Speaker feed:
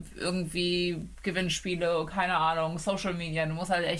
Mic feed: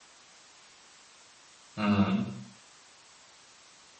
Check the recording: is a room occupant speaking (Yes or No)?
Yes